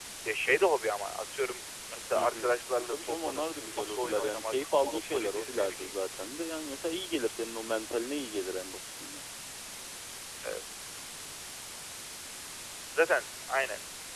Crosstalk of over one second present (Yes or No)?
Yes